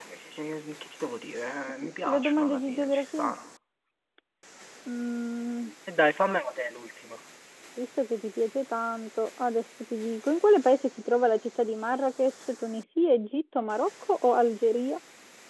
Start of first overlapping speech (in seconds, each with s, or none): 1.8 s